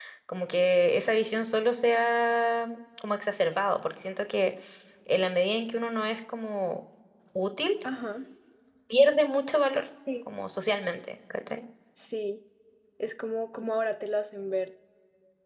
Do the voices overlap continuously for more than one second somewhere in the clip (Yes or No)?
No